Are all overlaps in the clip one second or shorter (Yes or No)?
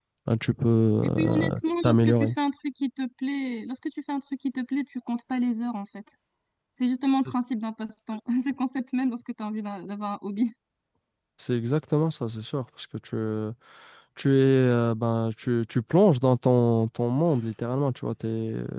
No